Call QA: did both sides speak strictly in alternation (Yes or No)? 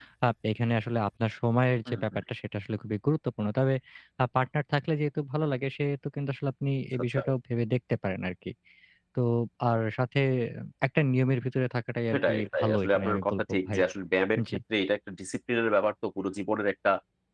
No